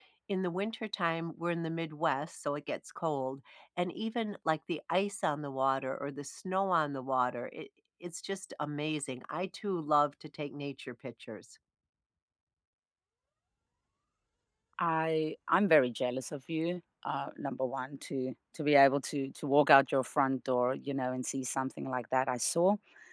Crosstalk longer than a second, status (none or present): none